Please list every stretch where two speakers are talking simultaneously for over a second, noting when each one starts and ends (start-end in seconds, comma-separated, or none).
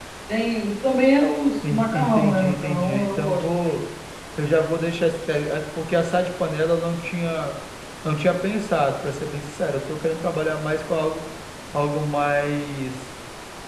1.7-3.8